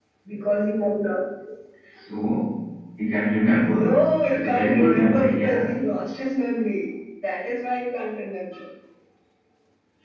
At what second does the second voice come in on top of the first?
4 s

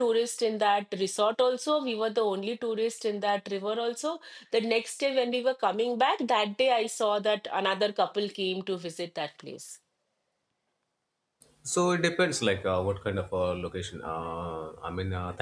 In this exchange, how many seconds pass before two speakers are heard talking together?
none

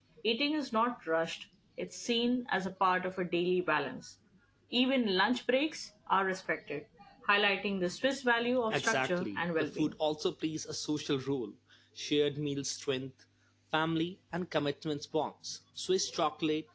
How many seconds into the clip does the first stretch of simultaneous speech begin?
9 s

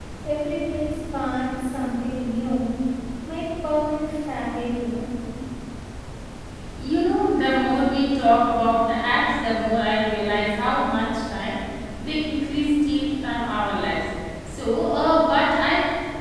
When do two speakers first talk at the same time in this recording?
none

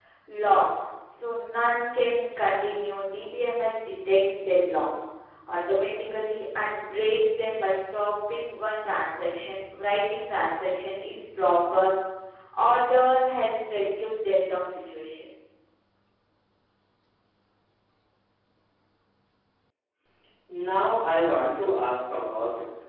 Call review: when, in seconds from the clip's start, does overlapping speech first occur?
none

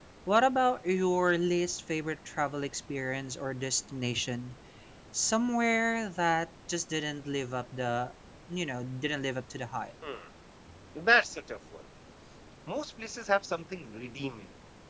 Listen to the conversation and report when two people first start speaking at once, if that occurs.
none

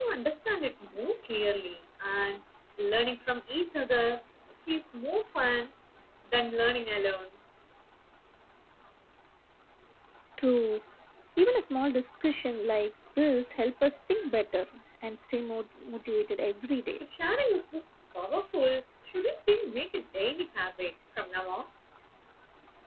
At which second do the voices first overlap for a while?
none

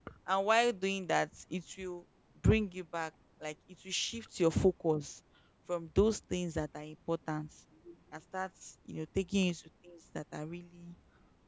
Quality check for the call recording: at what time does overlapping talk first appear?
none

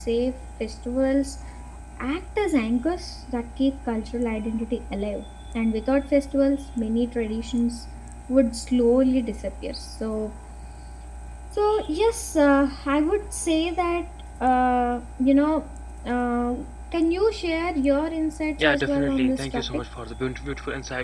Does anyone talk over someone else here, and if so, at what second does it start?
19 s

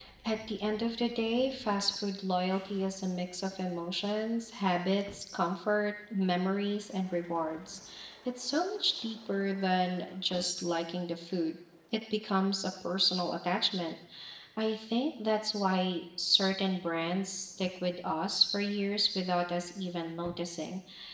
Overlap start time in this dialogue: none

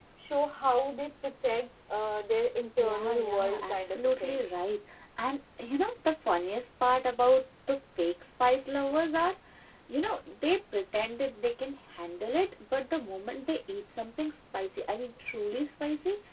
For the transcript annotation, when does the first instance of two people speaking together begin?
3 s

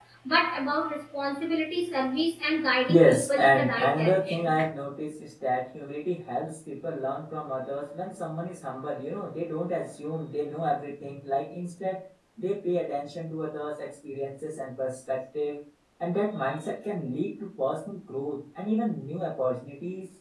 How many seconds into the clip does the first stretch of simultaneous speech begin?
3 s

